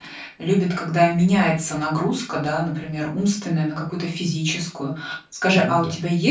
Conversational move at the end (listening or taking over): listening